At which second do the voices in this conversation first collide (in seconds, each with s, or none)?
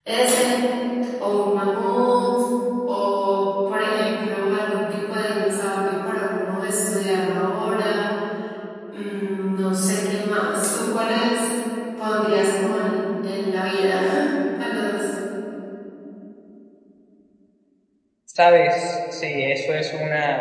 none